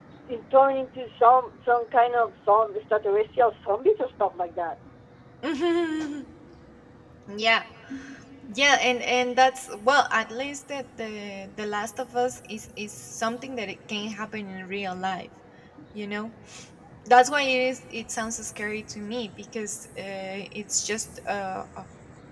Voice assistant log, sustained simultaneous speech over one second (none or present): none